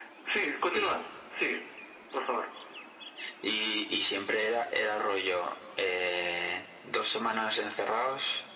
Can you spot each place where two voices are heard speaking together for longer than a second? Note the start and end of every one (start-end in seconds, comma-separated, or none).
none